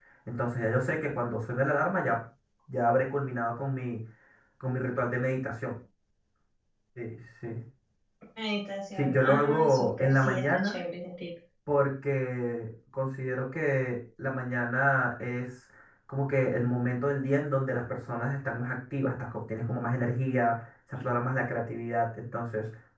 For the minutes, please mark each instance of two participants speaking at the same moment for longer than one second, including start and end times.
9.0-10.8

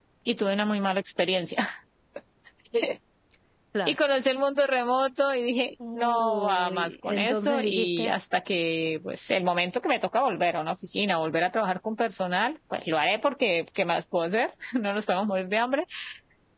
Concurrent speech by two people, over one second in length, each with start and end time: 6.0-8.1

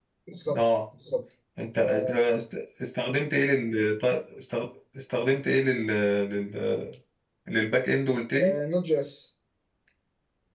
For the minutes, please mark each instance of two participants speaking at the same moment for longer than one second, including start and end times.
none

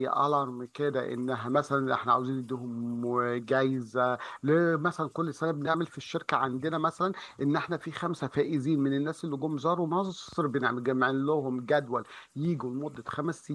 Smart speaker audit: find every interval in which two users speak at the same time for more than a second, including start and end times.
none

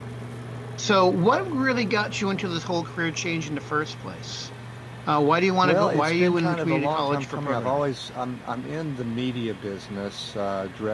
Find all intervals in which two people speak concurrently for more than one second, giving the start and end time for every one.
5.6-7.8

